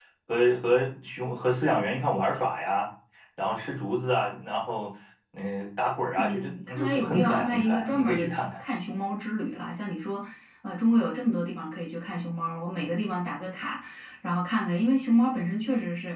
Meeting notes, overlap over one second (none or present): present